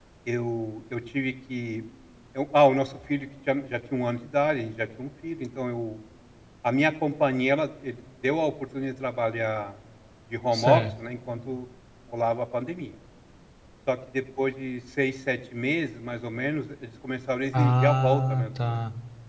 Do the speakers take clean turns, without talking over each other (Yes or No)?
No